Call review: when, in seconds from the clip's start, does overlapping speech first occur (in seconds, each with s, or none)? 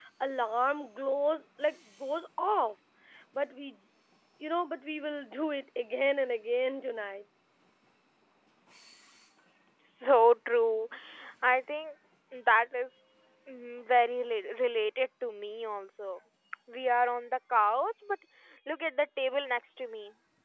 none